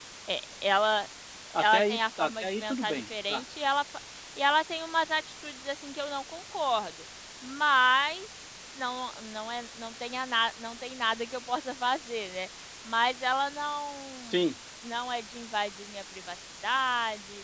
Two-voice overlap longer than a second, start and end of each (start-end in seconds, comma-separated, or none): 1.6-3.4